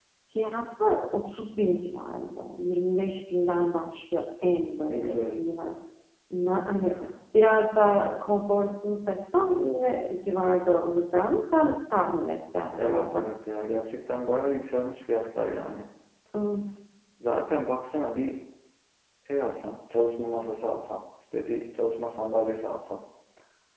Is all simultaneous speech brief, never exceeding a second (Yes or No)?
Yes